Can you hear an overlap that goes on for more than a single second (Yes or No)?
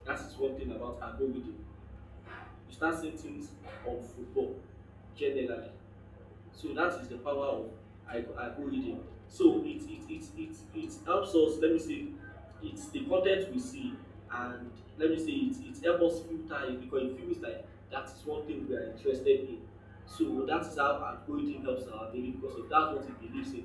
No